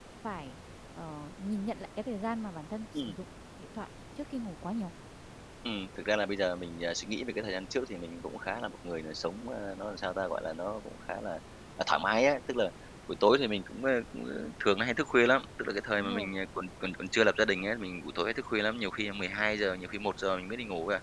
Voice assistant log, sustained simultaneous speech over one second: none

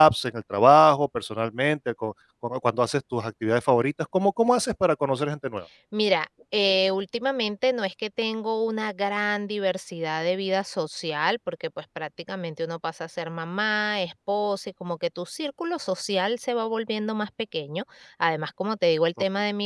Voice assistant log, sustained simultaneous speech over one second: none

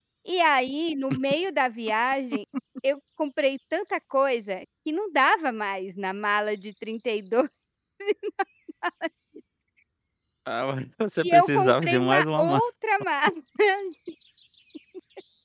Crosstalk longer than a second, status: present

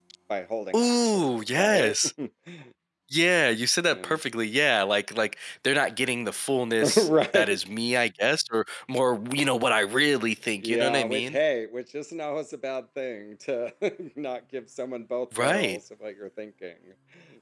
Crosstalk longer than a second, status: present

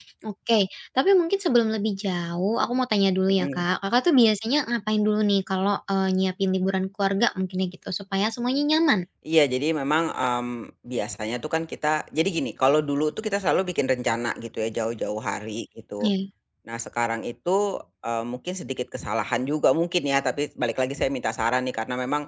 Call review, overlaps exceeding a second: none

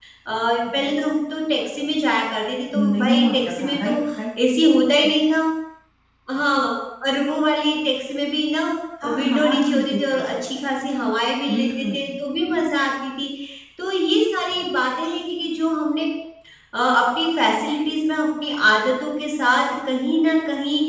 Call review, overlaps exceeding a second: present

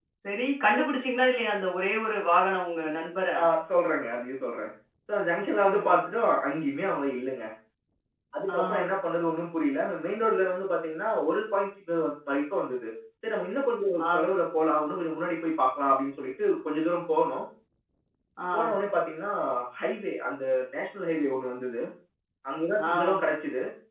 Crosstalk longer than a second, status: none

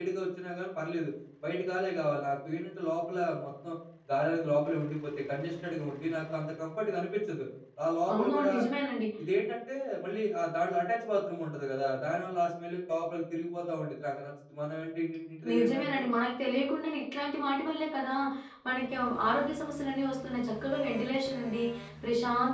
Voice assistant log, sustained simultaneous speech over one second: none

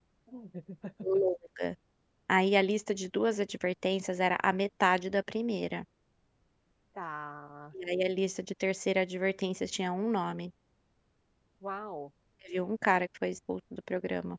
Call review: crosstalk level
none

